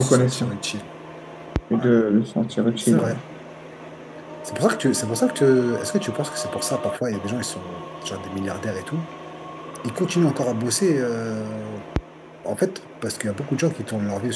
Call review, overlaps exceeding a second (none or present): none